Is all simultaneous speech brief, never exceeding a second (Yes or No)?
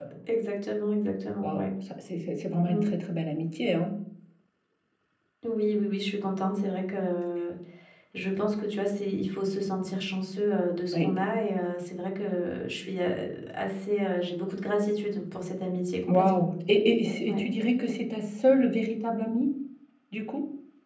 Yes